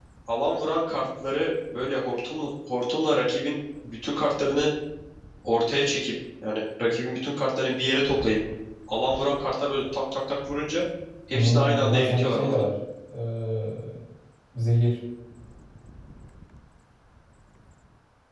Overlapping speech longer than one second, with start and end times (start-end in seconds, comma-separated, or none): 11.3-12.7